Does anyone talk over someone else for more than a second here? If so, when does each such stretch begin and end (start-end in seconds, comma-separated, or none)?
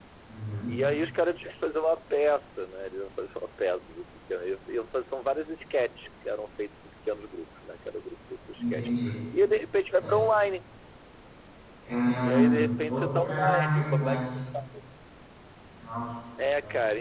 12.2-14.2